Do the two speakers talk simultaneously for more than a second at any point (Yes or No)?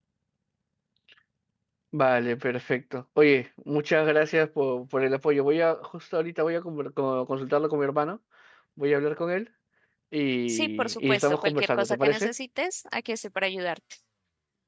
Yes